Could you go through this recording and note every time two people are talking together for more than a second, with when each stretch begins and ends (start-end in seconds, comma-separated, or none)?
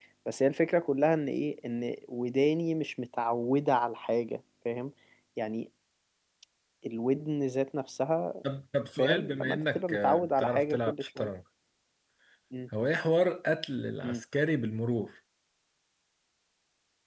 9.0-11.3